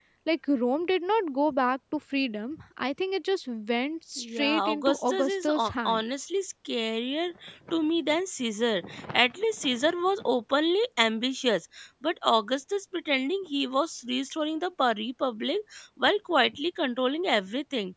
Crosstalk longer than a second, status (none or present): present